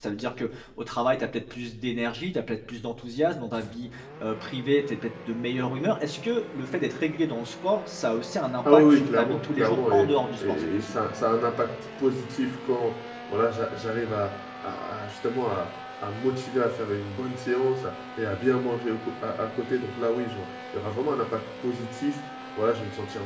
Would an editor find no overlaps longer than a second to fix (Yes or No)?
No